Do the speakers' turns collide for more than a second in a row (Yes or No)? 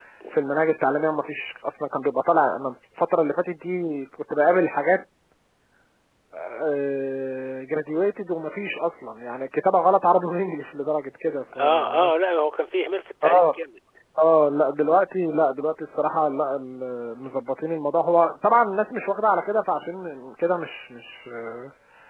No